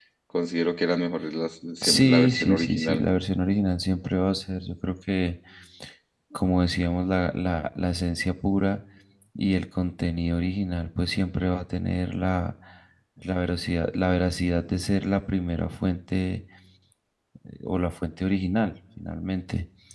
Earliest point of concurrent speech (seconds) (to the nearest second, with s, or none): 2 s